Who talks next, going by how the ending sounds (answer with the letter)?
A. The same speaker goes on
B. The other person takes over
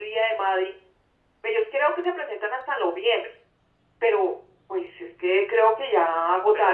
B